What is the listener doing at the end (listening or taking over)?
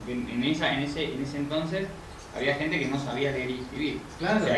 listening